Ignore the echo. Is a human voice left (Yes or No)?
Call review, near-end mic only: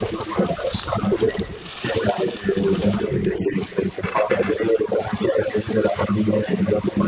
No